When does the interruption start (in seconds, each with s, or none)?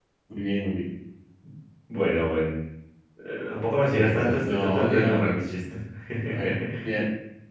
3.9 s